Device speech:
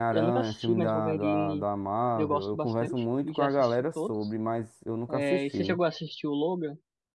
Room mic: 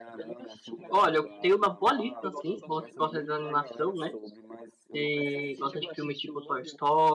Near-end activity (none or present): present